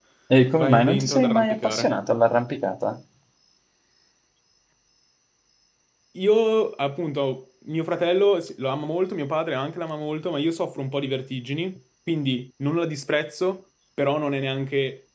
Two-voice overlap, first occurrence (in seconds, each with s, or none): 0.6 s